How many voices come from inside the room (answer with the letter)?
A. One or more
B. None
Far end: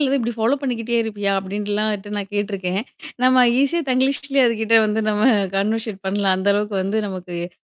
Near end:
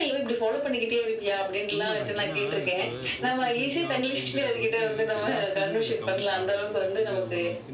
A